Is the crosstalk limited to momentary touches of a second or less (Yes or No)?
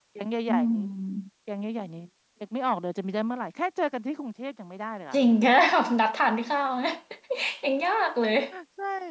Yes